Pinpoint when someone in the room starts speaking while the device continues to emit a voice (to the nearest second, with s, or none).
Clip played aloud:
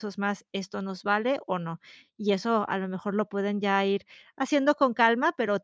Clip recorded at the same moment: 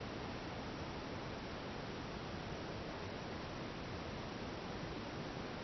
none